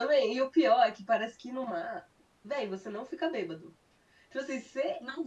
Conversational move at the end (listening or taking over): listening